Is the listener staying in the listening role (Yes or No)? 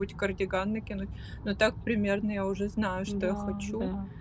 No